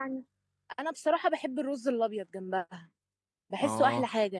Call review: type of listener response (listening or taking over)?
taking over